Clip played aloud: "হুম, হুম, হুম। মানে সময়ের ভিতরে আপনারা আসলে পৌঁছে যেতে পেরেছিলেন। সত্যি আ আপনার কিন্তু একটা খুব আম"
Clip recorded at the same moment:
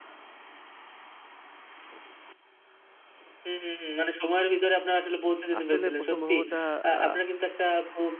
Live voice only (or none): আসলে ১ম ভ্রমণটা আ